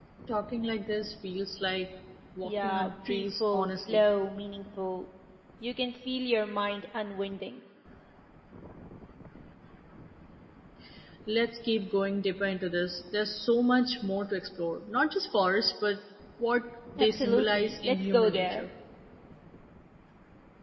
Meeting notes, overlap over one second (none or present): present